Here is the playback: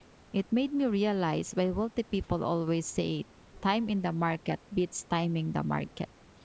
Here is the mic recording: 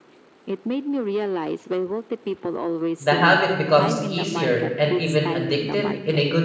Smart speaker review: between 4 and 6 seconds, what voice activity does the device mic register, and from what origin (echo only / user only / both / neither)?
both